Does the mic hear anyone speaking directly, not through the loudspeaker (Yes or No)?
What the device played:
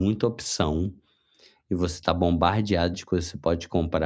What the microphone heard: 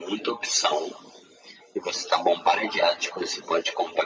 No